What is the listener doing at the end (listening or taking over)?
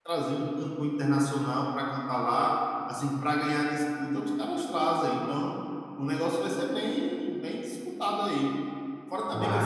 listening